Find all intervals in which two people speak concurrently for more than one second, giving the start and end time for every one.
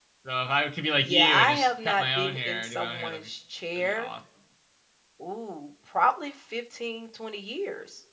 1.0-3.3

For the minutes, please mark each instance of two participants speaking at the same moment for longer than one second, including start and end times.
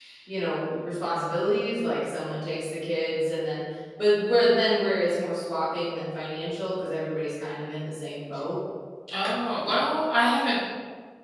none

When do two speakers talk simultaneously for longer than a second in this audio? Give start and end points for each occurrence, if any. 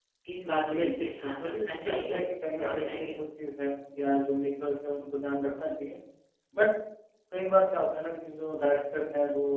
0.6-2.2

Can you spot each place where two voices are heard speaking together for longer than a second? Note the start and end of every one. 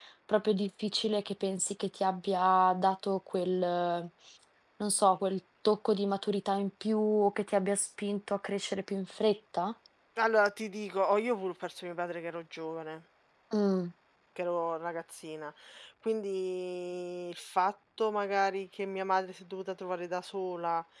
none

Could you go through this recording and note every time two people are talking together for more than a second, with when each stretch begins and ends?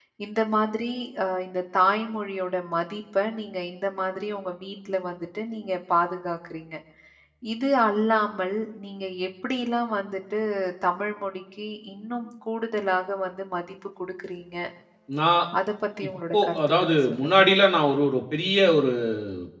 16.1-17.4

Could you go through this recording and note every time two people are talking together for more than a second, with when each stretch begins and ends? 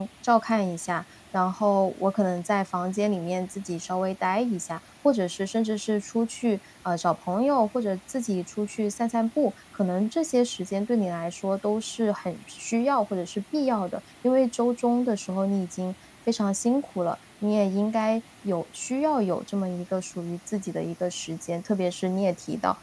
none

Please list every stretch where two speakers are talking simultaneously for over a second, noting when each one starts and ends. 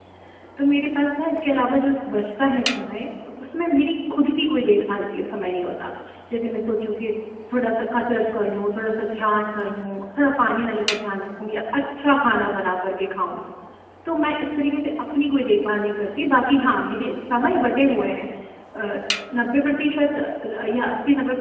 none

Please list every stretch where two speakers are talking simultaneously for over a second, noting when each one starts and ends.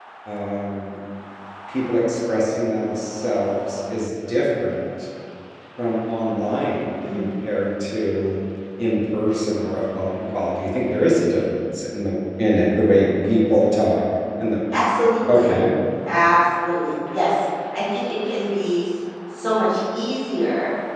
none

